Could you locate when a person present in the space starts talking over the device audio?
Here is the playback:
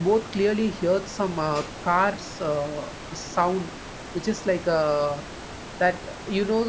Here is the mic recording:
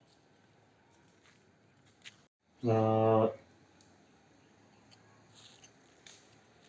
3 s

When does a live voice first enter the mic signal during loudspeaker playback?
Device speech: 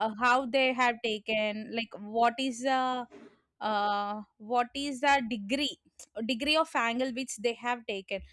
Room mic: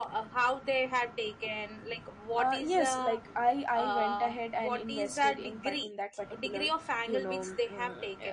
2 s

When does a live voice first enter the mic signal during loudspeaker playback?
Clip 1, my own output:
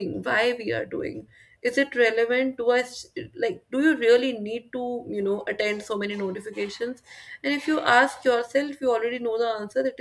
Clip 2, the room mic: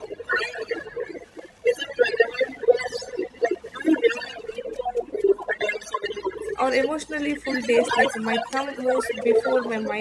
7 s

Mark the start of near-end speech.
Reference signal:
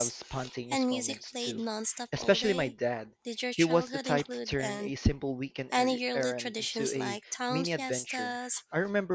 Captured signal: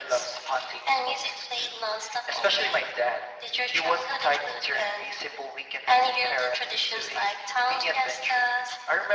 none

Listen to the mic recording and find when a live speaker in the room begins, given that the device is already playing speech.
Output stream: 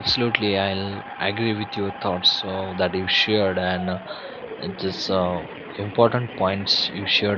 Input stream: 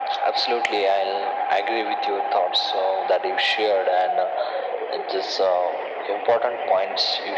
none

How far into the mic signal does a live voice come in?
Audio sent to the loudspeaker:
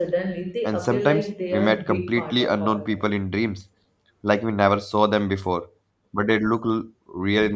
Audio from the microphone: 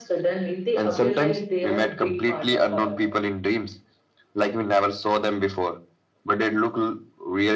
none

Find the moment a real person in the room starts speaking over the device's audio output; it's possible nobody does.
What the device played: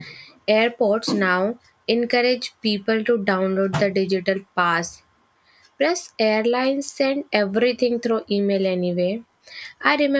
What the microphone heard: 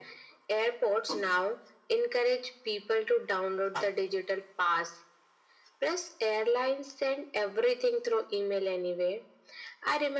none

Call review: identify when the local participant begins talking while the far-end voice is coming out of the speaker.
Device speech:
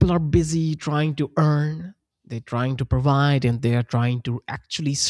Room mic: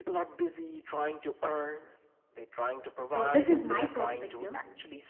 3 s

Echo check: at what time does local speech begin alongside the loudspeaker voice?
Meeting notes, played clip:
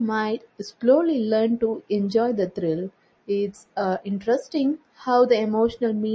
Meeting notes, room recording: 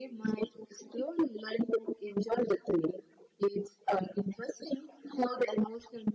none

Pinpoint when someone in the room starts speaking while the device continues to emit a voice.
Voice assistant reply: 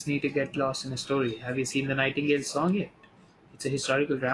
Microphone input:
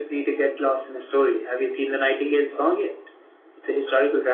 none

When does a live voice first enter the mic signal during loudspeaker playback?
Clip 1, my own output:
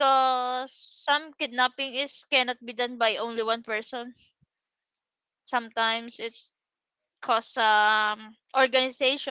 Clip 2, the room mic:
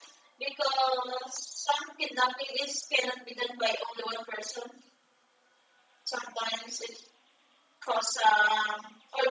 none

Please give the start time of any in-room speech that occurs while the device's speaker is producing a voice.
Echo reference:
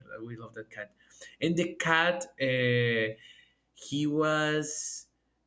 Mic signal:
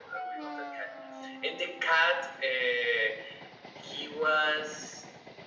none

